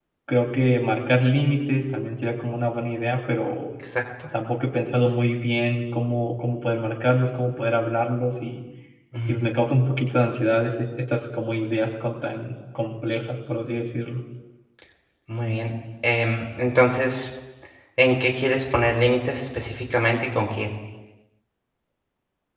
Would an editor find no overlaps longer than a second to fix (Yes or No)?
Yes